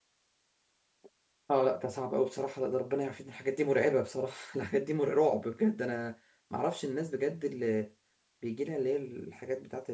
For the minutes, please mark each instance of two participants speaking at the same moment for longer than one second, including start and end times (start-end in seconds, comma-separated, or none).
none